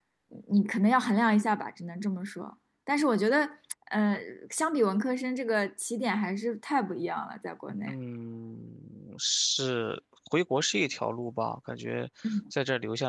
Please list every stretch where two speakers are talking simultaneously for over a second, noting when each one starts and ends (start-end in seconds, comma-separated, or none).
none